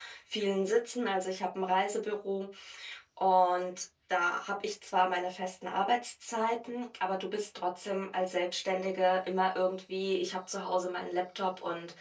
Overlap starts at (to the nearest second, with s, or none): none